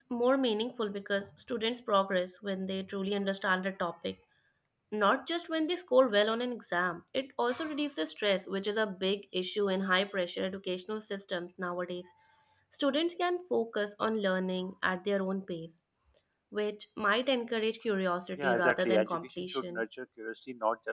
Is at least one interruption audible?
Yes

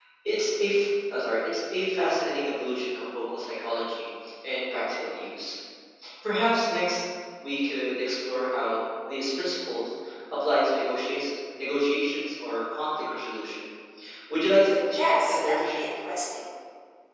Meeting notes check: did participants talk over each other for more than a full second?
Yes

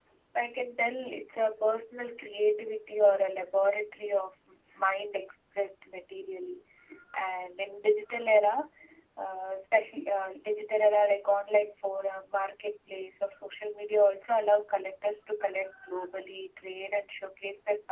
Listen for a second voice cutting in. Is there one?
No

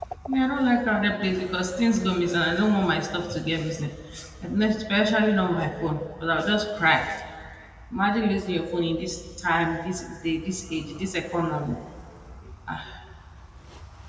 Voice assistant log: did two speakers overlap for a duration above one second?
No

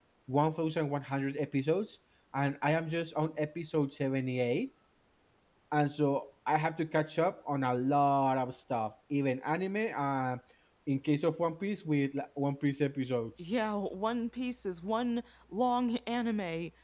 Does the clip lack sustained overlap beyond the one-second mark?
Yes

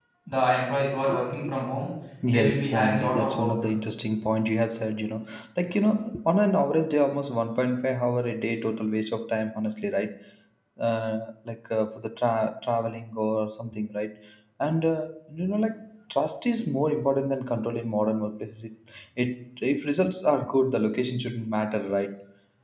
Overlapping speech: Yes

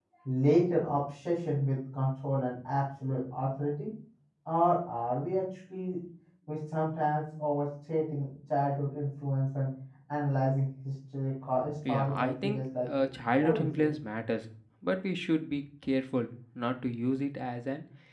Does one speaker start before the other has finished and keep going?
Yes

